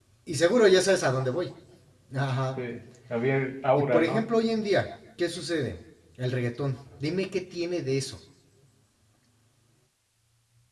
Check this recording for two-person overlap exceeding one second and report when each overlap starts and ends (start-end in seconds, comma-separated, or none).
none